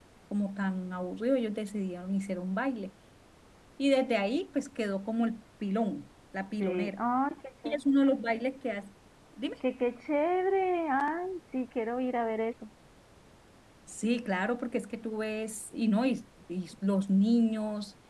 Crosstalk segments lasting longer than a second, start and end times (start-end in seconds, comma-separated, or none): none